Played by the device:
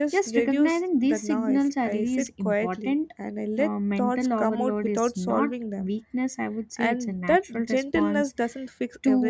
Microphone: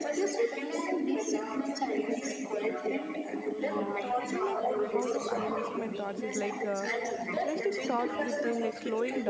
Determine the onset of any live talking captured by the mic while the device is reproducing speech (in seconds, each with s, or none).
3.6 s